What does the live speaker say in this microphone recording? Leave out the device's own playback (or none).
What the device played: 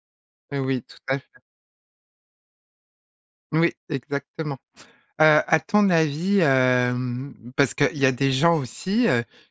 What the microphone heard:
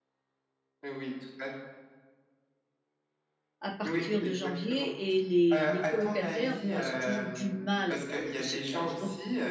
à partir de janvier et les les colocataires, bon elles ont toujours du mal à faire le recyclage, donc